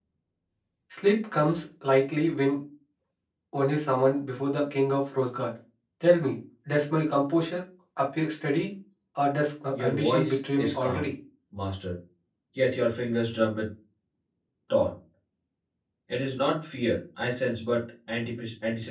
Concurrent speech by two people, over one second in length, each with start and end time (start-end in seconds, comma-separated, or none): 9.8-11.1